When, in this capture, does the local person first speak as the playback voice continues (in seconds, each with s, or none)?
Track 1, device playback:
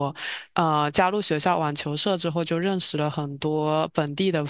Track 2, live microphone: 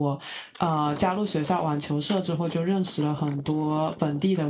none